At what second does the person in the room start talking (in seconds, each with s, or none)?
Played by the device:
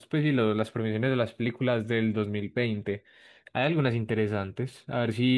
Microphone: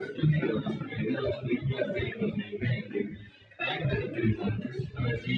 none